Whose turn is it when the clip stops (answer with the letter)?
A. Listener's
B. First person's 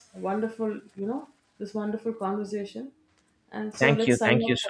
A